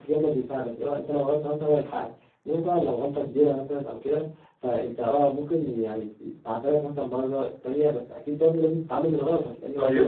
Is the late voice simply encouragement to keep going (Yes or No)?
No